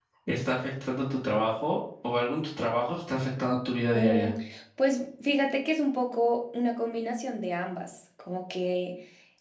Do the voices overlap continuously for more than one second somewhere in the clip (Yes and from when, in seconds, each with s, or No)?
No